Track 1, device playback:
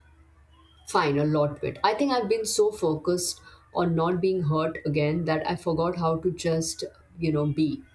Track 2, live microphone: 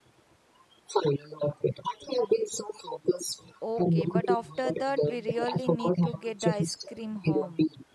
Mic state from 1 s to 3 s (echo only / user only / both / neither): echo only